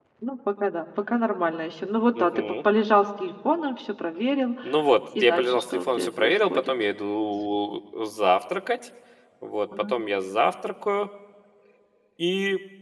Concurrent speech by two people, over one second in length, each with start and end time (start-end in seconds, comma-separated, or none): 5.2-6.7